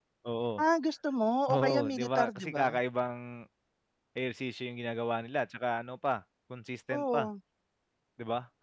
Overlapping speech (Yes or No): Yes